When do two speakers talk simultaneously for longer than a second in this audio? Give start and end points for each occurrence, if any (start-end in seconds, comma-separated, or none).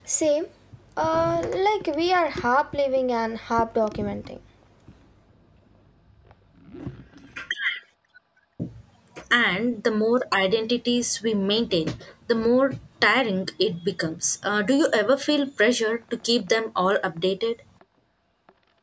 none